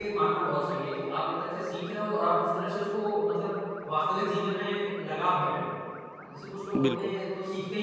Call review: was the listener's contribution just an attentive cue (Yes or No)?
Yes